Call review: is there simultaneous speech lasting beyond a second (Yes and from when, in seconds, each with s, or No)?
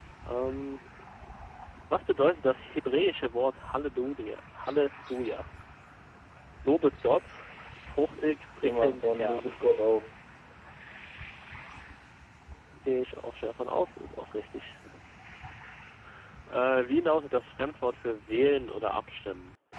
Yes, from 8.1 s